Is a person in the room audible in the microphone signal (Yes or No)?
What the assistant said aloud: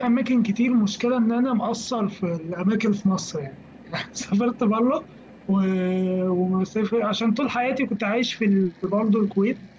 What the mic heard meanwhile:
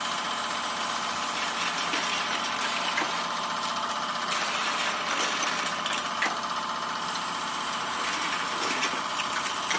No